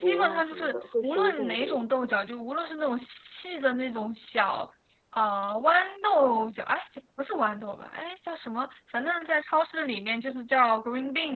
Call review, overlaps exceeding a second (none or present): present